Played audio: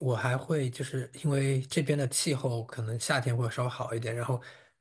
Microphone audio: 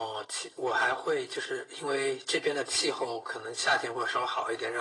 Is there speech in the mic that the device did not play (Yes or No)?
No